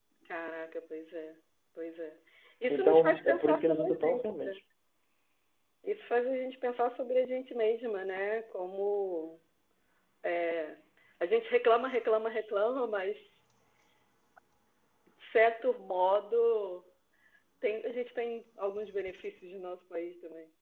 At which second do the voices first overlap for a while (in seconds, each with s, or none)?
2.7 s